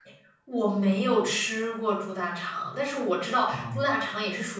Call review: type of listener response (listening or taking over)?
listening